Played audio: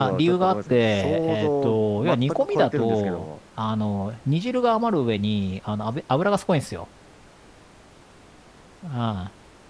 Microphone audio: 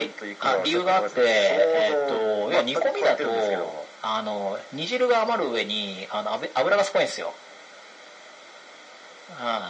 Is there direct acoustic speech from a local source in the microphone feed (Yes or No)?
No